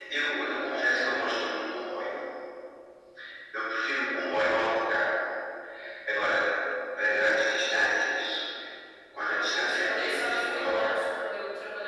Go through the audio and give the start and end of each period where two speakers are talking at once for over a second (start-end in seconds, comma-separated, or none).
9.2-11.0